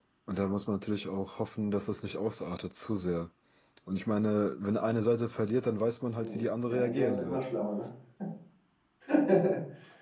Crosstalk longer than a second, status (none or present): present